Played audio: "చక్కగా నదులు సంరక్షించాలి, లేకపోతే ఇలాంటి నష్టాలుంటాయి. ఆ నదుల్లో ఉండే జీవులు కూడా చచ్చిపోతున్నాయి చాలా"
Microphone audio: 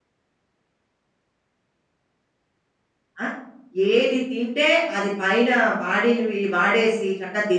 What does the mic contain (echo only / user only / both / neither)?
user only